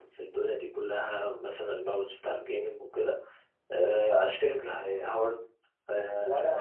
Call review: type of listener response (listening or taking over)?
taking over